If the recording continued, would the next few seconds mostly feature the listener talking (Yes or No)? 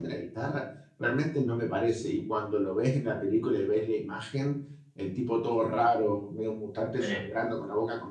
No